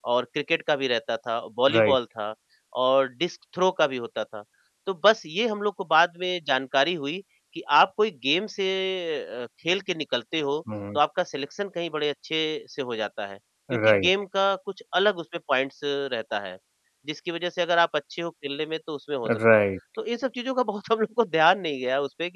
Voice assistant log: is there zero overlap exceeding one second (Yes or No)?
Yes